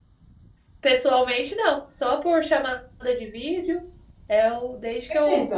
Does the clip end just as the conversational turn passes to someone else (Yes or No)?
No